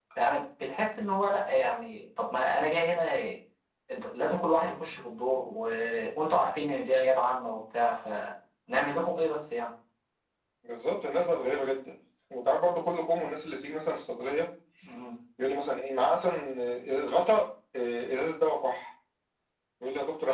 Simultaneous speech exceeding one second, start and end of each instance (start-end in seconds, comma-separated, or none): none